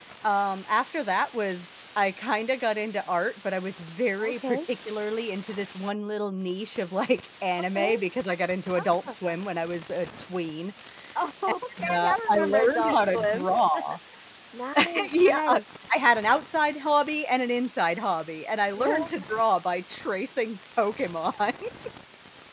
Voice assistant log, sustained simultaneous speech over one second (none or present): present